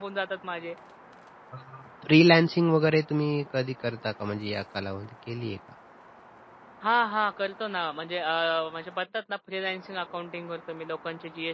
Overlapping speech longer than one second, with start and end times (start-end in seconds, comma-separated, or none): none